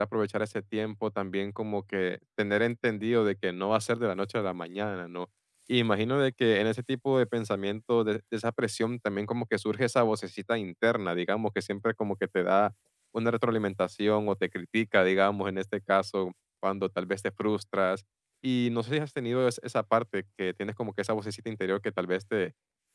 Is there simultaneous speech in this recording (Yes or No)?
No